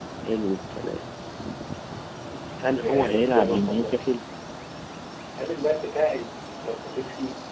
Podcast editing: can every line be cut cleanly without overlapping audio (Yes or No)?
No